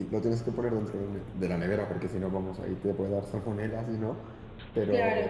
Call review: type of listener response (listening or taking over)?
listening